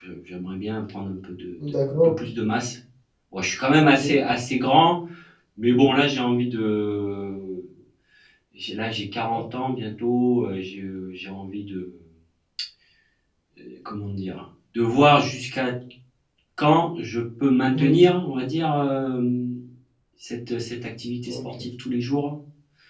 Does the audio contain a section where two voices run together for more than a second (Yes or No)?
No